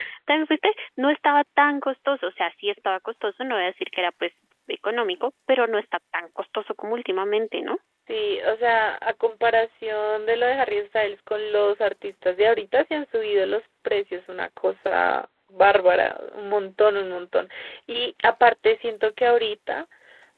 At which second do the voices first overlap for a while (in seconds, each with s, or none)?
none